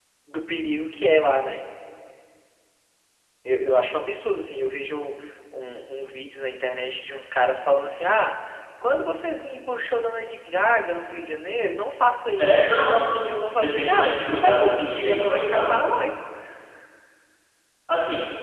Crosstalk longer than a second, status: present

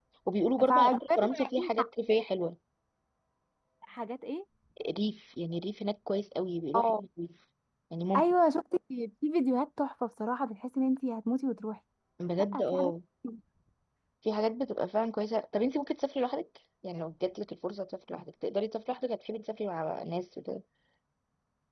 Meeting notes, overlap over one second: present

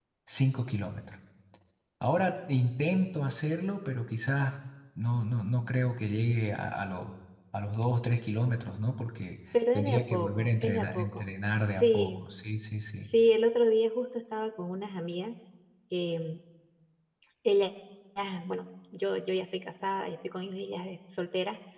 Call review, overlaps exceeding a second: present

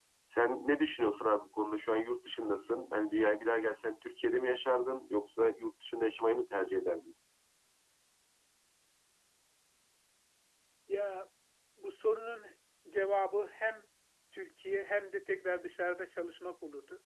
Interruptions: none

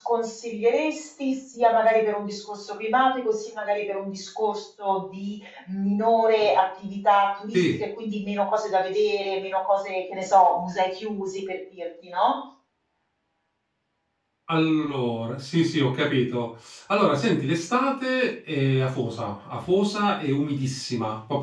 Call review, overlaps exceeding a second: none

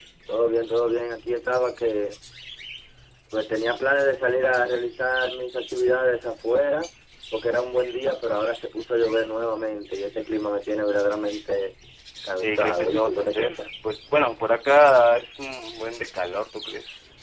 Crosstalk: present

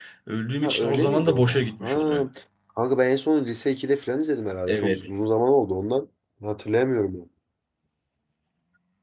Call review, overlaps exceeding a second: present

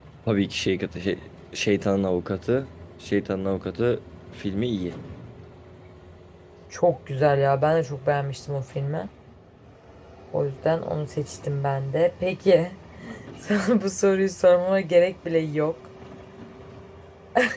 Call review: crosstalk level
none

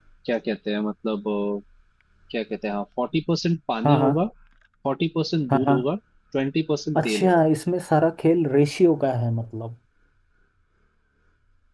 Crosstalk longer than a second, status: none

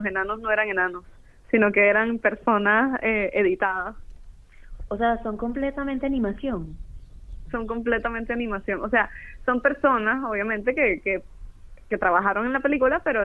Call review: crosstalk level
none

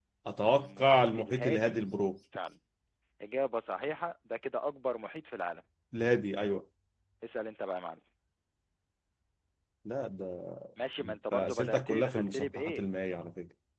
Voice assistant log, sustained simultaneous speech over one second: present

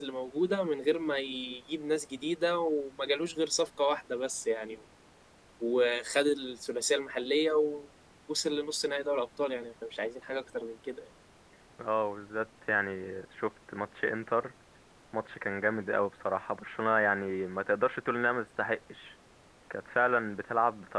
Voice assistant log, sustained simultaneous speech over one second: none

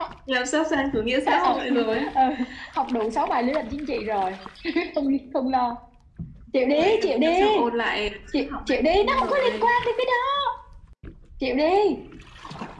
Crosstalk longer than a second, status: present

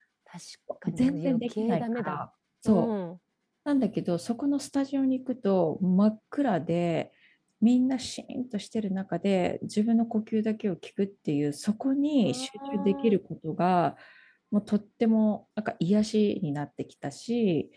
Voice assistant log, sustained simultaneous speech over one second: present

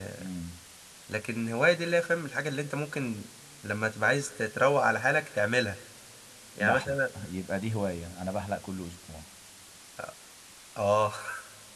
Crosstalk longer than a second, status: none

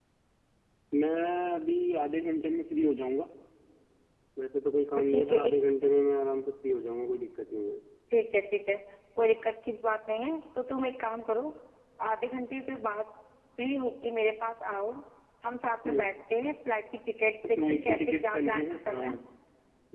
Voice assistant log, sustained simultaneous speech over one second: present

